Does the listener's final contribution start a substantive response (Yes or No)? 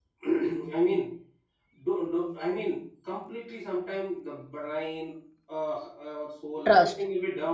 No